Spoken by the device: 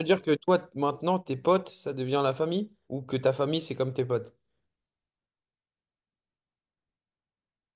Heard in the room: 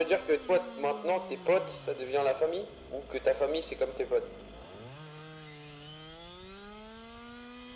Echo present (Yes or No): Yes